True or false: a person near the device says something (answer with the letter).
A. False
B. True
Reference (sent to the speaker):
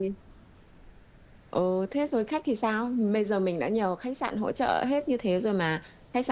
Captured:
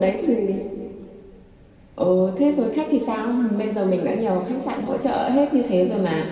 A